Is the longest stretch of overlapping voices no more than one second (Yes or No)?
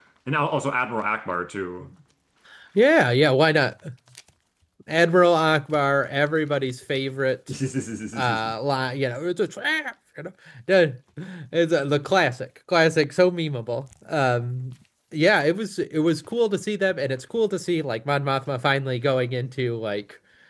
Yes